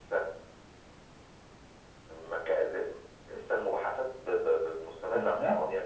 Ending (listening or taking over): taking over